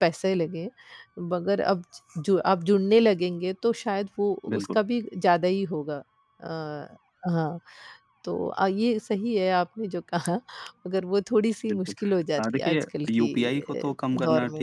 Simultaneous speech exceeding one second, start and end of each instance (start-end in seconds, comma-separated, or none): 12.4-13.9